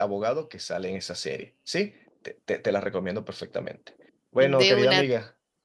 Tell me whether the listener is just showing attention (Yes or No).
Yes